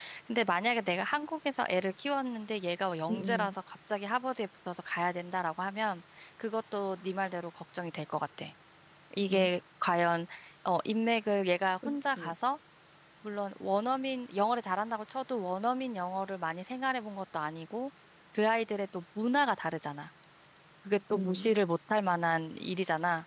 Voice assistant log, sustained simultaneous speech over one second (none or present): none